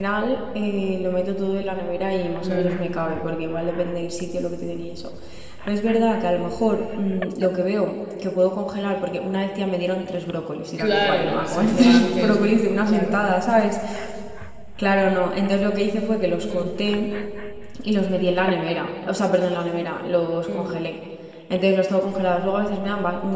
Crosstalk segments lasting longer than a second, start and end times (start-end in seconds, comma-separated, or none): 10.8-13.2